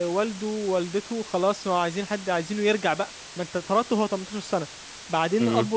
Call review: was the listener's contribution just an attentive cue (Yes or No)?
Yes